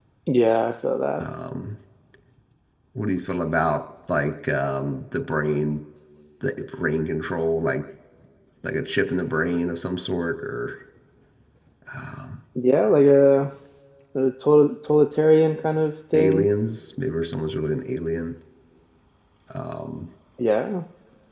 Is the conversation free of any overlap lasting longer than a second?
Yes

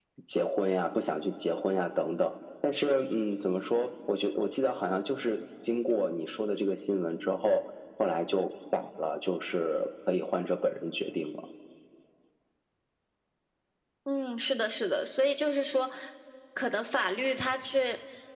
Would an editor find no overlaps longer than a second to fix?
Yes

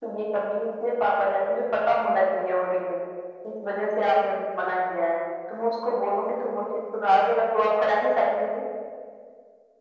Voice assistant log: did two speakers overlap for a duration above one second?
No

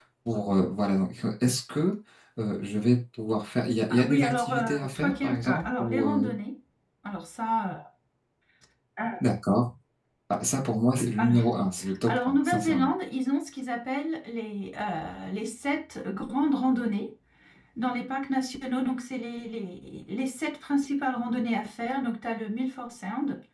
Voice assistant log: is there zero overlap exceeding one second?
No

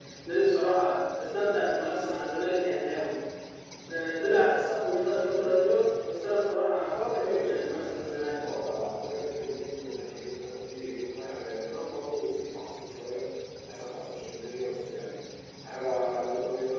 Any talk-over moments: Yes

